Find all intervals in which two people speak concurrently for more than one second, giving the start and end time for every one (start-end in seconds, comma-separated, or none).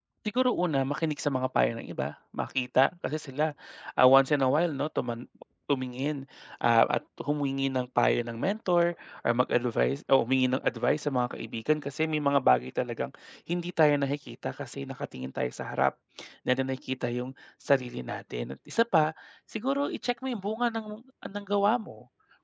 none